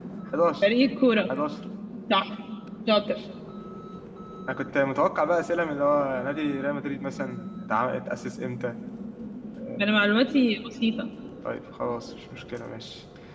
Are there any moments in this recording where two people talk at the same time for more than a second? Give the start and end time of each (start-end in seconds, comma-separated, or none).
none